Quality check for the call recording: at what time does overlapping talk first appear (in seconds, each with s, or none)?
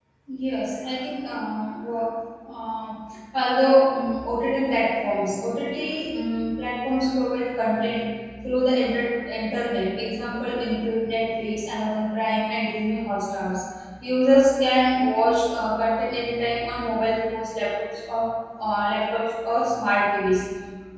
none